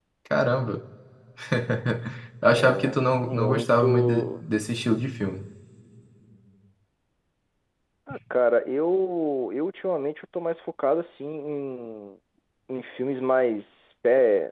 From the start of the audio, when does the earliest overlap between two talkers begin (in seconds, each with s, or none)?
2.6 s